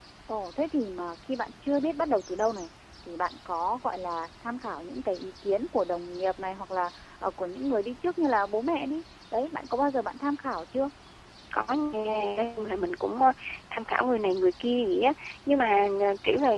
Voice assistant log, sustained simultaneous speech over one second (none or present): none